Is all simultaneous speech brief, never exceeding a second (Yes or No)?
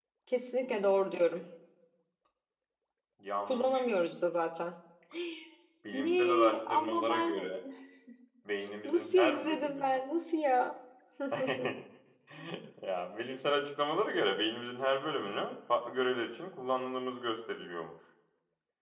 No